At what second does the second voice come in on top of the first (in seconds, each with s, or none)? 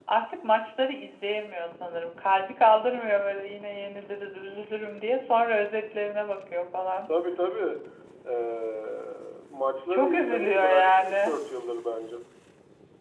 9.9 s